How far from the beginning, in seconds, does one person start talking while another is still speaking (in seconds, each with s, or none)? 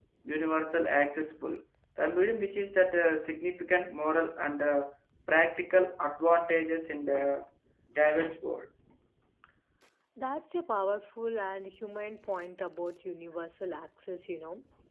none